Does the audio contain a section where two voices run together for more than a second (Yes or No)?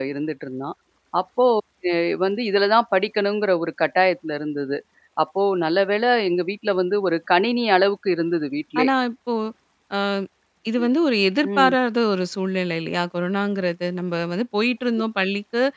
No